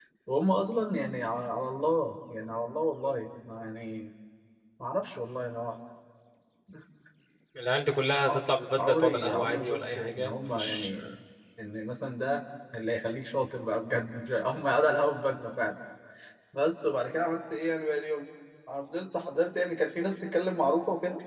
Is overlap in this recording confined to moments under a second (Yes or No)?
No